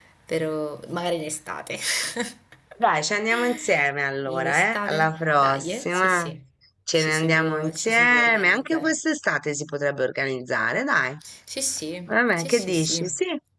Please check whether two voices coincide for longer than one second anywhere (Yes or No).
Yes